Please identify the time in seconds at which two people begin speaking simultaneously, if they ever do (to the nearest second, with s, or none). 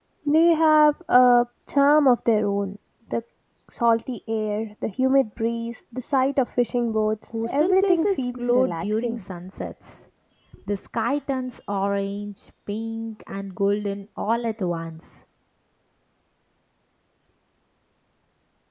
7 s